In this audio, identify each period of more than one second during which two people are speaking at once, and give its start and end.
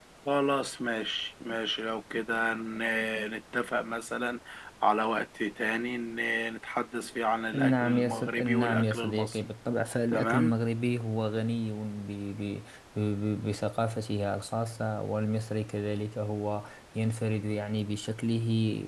7.5-9.4

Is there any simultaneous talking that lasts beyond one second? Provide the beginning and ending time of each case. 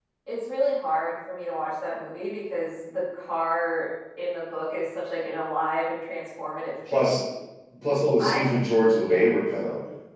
none

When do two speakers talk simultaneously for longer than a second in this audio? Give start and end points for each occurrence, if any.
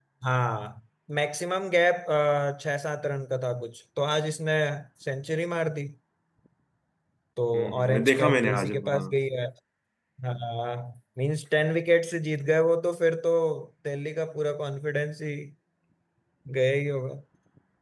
7.8-9.1

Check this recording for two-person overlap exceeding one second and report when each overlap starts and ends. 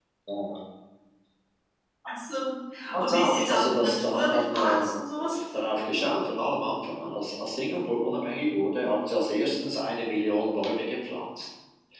3.0-4.9

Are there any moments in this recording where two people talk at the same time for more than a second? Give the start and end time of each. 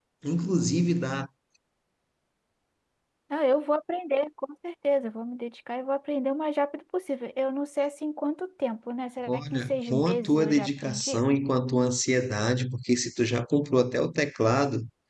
9.3-11.2

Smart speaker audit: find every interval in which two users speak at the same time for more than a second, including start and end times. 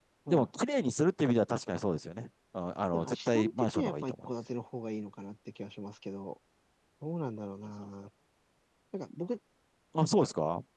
2.9-4.3

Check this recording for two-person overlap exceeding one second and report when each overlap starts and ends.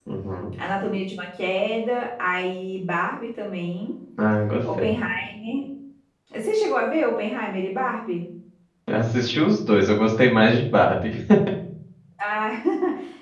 none

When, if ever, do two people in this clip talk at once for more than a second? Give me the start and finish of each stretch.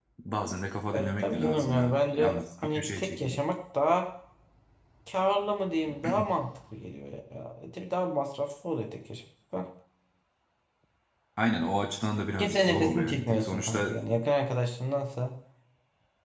0.9-3.5, 12.4-13.9

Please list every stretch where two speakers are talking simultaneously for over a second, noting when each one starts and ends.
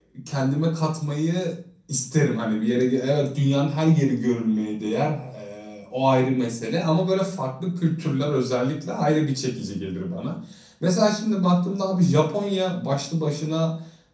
none

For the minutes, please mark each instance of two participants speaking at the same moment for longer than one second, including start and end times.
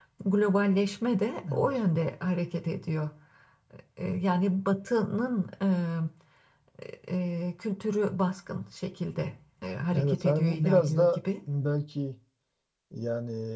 9.9-11.2

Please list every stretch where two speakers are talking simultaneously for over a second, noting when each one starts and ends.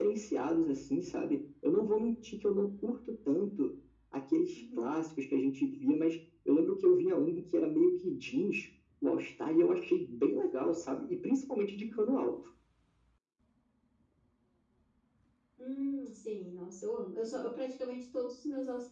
none

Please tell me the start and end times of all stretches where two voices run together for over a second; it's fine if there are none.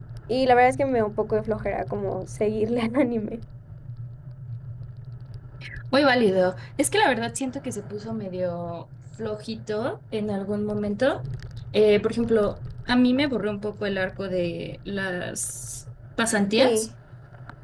none

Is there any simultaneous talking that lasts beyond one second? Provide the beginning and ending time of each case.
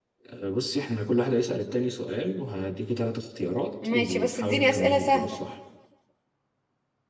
3.8-5.4

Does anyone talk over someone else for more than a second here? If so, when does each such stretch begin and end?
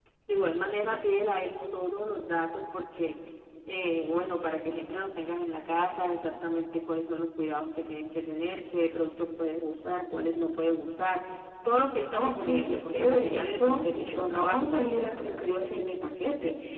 12.1-14.7

